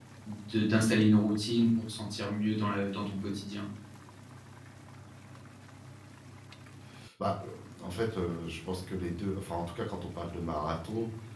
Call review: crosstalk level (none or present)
none